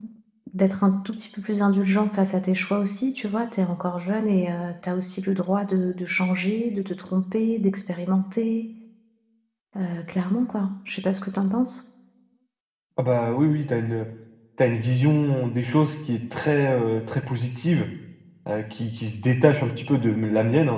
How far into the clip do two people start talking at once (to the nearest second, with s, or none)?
none